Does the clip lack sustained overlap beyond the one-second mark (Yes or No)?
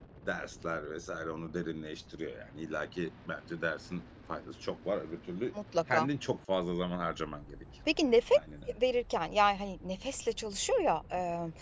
Yes